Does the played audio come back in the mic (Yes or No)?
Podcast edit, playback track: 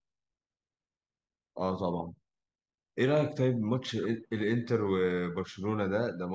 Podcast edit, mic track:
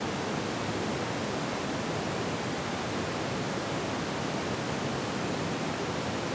No